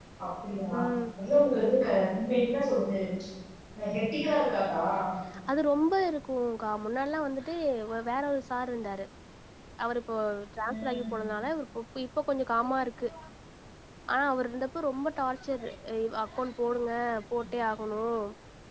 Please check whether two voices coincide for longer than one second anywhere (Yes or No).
No